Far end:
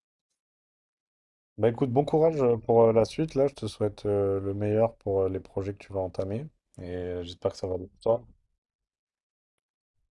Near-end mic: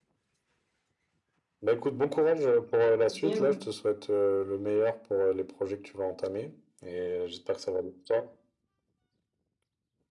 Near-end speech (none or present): present